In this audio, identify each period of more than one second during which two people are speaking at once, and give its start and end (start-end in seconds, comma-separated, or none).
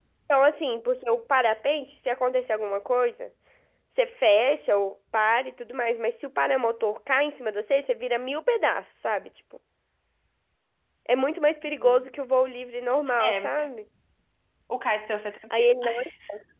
none